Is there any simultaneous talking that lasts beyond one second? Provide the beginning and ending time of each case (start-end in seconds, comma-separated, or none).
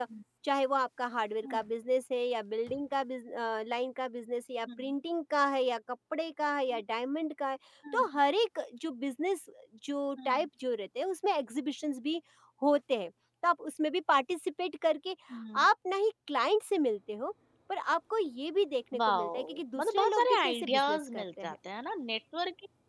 19.1-21.5